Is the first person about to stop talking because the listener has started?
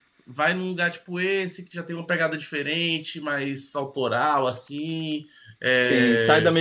Yes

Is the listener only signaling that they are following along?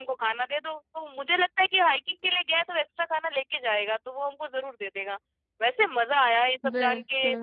Yes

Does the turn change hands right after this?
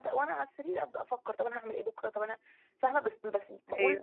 No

